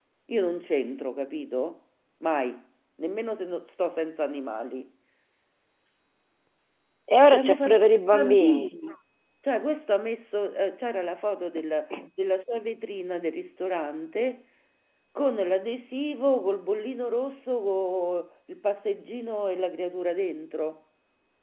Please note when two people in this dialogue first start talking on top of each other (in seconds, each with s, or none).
7.3 s